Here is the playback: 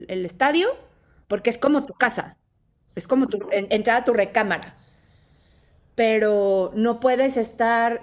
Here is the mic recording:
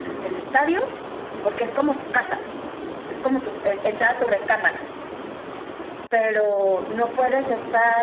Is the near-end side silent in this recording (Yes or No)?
Yes